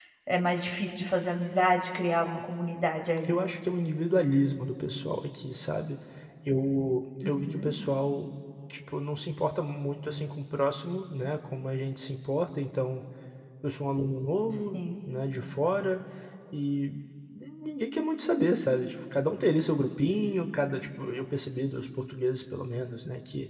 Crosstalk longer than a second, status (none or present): none